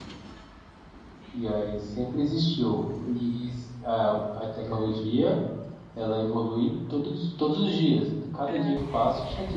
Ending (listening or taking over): listening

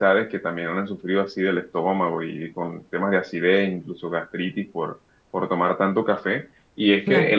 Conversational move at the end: listening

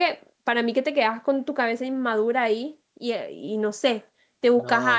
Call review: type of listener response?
listening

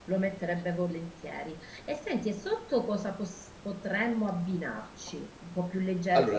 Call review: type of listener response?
listening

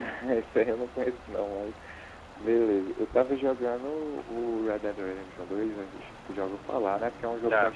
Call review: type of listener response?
listening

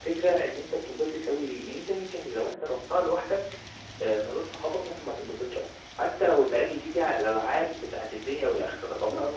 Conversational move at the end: listening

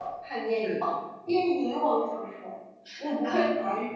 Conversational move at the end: listening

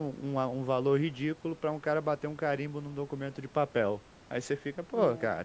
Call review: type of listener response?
listening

